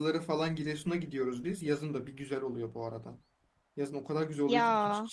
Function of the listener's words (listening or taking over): listening